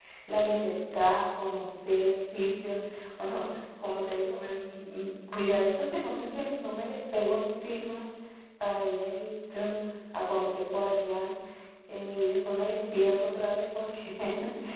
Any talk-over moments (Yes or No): No